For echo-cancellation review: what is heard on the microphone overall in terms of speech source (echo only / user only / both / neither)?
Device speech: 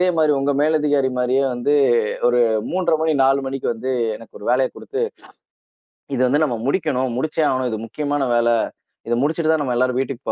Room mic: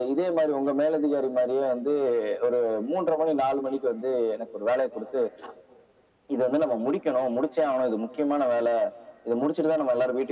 echo only